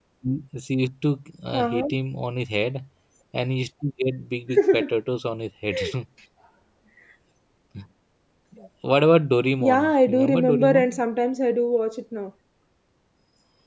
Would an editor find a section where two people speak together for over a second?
Yes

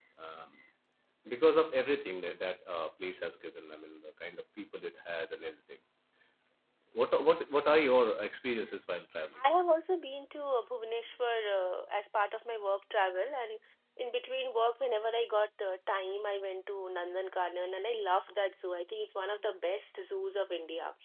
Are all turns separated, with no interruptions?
Yes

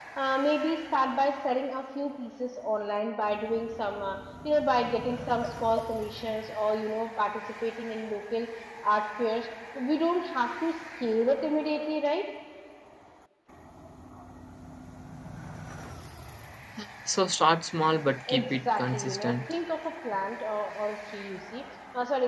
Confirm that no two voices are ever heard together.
No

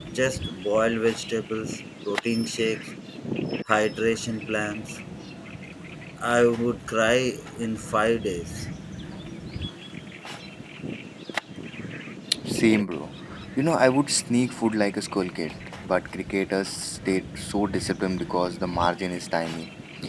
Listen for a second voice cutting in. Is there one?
No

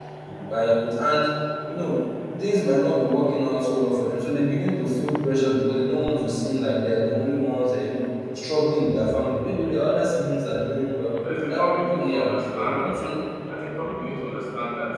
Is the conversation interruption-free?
No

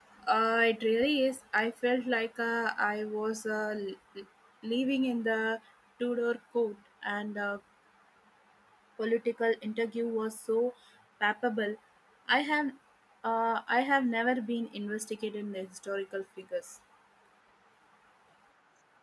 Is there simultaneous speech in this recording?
No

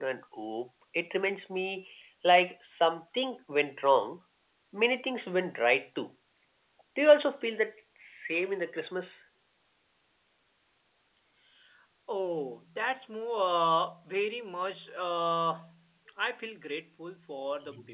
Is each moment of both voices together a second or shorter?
Yes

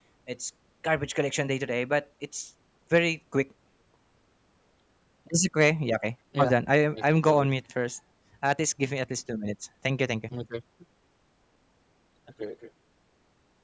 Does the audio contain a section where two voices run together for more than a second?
No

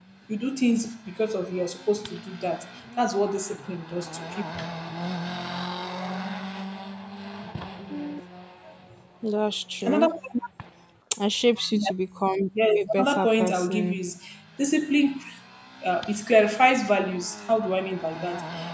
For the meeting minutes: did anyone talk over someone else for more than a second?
Yes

